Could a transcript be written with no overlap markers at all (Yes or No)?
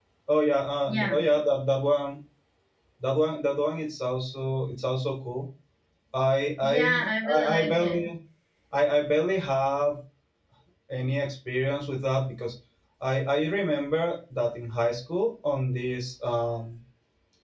No